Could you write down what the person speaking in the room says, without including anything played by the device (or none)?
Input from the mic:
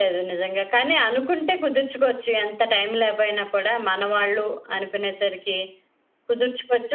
none